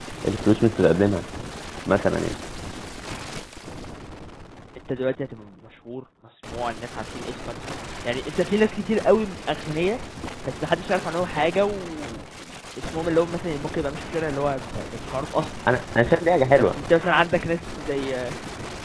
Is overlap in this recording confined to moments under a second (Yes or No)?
Yes